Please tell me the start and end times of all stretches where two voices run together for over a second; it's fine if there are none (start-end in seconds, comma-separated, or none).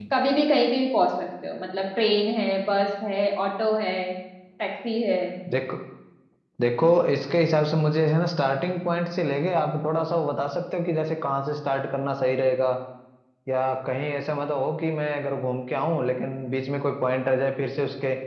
none